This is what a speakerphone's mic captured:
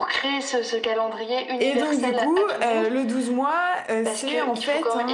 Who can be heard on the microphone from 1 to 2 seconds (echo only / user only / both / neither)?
both